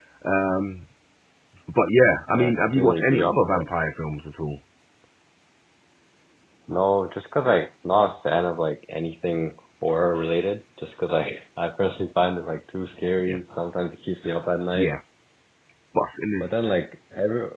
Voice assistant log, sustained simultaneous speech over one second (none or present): present